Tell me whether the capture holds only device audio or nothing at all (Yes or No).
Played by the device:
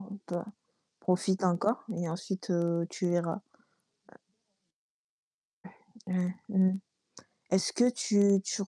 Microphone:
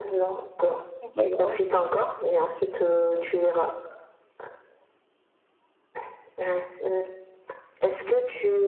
No